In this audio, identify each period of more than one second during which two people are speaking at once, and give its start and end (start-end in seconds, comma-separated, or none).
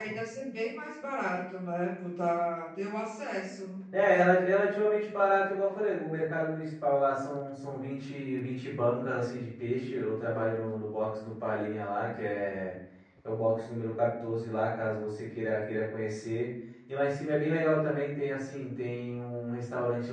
none